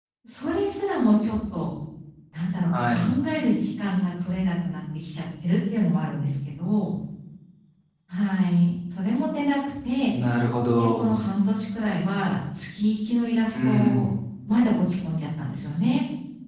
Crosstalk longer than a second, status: none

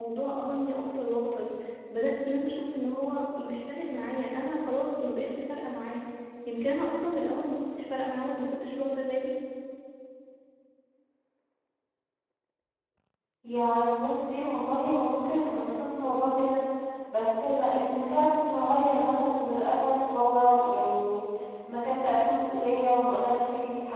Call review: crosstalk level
none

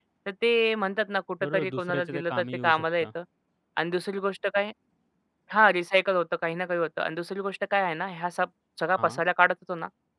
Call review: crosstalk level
present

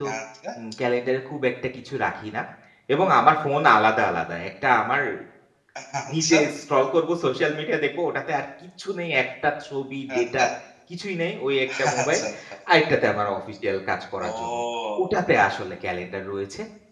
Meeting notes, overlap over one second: none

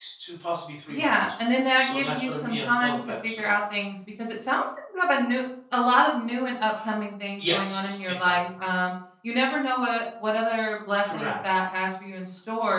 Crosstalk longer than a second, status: present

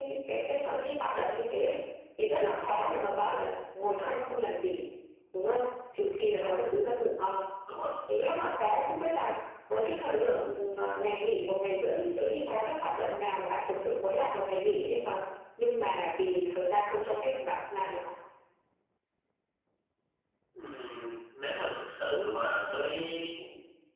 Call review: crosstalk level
none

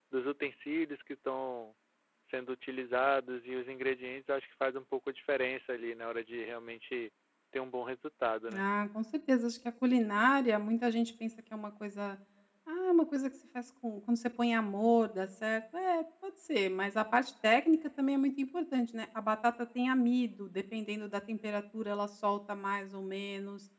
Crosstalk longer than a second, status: none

